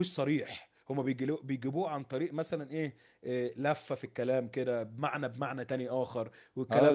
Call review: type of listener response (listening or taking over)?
taking over